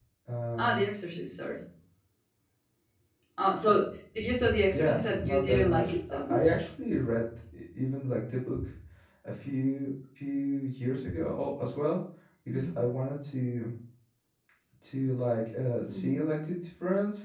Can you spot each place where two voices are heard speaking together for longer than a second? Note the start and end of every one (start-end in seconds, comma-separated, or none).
4.7-6.6